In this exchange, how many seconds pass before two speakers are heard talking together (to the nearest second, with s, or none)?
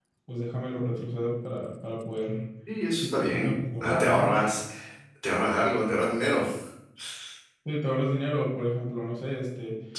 3 s